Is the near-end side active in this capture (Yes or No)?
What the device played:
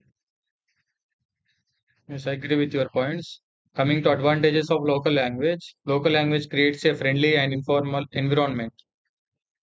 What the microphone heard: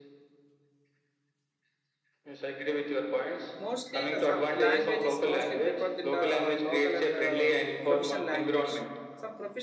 Yes